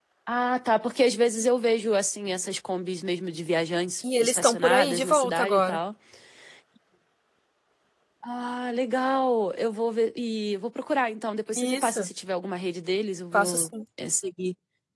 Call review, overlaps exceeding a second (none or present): present